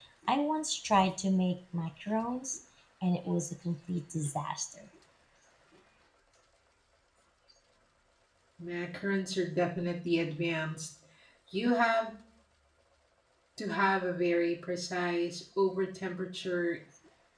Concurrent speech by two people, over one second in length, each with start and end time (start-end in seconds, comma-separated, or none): none